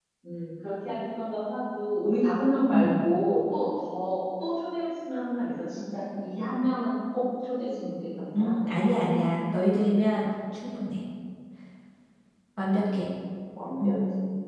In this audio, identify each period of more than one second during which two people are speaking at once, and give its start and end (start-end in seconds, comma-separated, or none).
none